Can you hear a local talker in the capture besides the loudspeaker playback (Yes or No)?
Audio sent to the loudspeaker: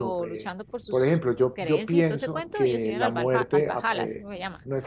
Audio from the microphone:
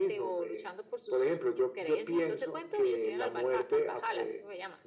No